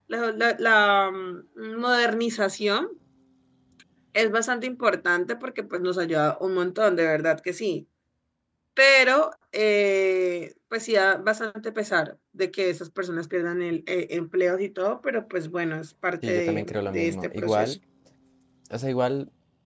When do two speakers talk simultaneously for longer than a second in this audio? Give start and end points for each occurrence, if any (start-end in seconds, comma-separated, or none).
16.2-17.8